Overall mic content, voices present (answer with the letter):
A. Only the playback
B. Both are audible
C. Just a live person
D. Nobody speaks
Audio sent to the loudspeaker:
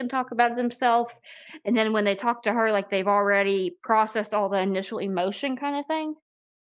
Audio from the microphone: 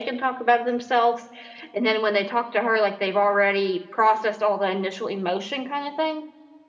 A